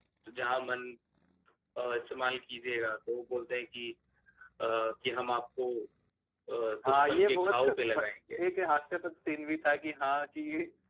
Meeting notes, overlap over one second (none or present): present